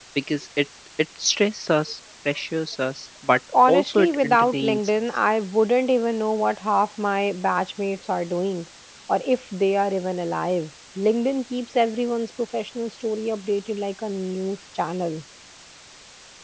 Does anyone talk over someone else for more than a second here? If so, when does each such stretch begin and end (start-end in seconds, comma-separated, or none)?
3.7-5.0